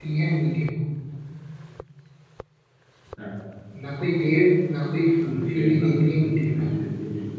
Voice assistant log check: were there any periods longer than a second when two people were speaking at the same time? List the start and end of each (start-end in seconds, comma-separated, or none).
5.2-6.7